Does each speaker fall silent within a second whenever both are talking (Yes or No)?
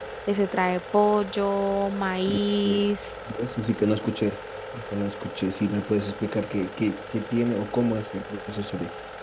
Yes